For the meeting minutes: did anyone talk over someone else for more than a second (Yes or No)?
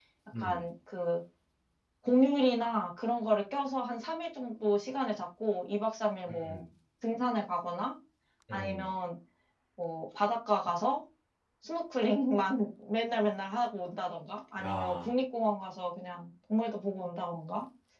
No